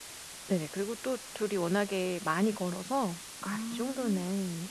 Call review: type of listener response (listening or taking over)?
listening